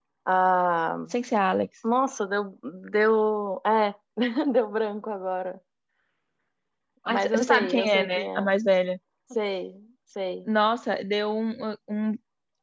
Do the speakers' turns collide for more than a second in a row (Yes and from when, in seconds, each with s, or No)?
Yes, from 7.1 s